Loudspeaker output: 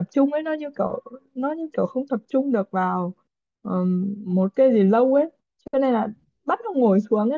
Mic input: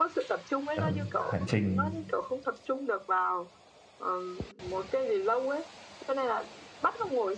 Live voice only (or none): Ừ. hành trình